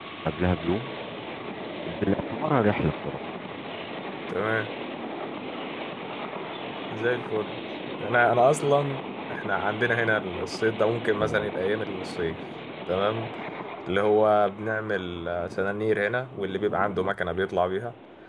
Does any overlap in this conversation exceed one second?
No

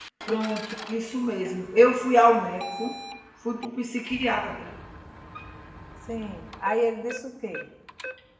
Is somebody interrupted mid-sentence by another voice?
No

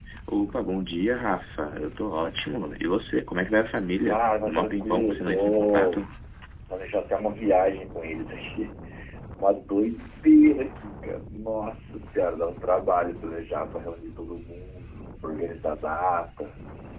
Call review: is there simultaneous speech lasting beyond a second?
Yes, from 4.0 s

